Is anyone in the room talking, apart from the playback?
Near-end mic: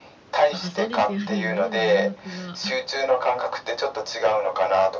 Yes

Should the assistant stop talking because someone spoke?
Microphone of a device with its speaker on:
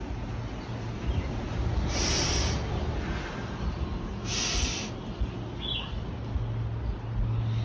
No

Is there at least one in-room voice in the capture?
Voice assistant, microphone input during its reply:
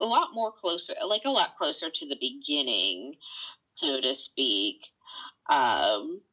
No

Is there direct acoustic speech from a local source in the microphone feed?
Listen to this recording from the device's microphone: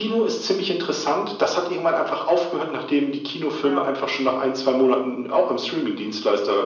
Yes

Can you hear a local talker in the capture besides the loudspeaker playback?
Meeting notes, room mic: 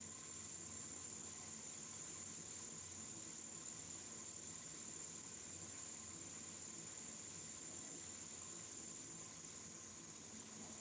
No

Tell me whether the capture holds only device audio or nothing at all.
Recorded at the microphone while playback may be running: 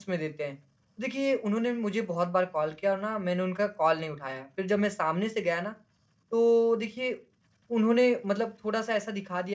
No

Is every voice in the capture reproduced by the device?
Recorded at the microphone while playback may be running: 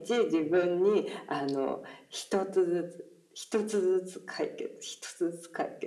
Yes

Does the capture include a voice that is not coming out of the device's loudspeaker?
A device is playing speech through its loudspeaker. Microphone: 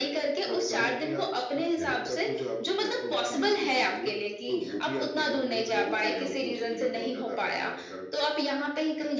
Yes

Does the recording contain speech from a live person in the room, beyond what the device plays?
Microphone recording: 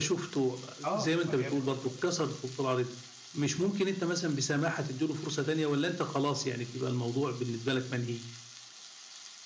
Yes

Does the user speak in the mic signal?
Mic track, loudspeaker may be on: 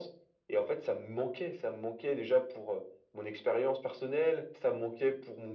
No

